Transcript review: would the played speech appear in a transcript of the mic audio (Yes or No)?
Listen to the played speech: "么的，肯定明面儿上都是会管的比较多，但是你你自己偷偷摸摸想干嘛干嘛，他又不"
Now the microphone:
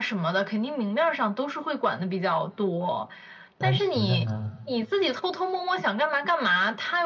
Yes